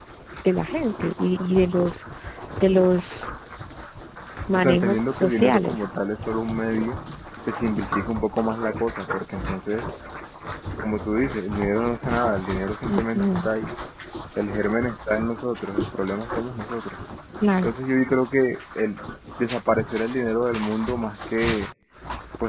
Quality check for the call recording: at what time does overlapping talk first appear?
5 s

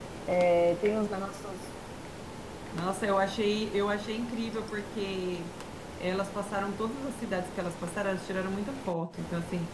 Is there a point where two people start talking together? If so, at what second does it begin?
none

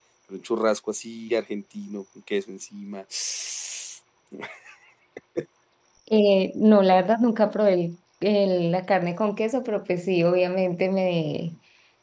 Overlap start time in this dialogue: none

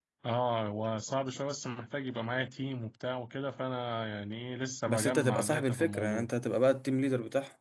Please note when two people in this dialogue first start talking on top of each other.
5 s

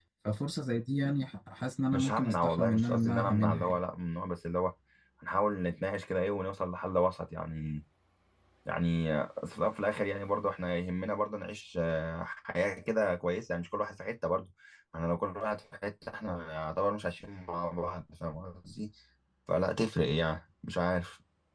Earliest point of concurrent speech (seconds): 2 s

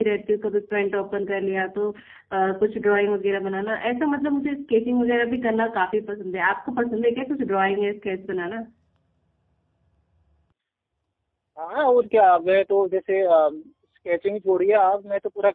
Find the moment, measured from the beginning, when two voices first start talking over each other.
none

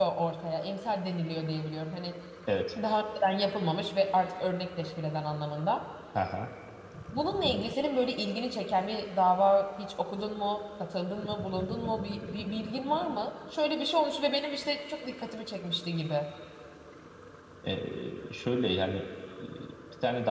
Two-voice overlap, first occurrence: none

